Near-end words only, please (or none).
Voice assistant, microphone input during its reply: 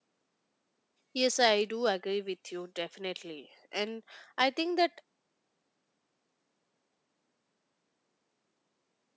Yes, I do agree with you definitely. And I think that